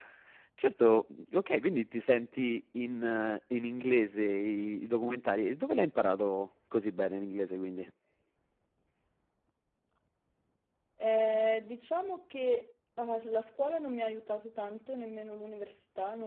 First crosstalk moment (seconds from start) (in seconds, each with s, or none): none